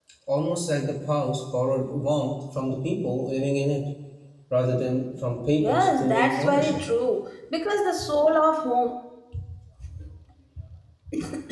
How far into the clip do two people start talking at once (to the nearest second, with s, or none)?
6 s